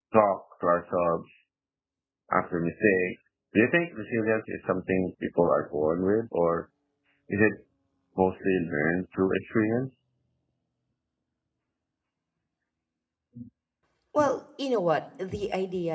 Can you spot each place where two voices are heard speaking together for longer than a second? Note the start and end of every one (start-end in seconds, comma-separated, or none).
none